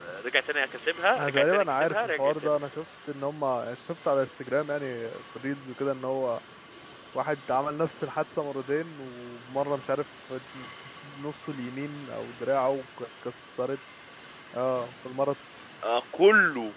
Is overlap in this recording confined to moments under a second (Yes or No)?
No